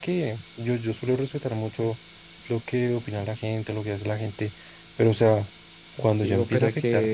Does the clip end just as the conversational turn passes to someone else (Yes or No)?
Yes